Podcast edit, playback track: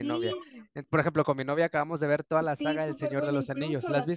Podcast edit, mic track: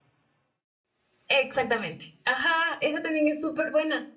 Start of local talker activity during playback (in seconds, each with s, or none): 1.3 s